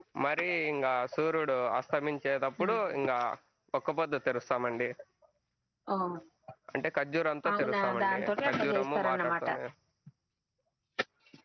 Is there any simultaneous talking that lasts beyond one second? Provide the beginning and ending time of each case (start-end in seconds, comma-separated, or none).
7.6-9.3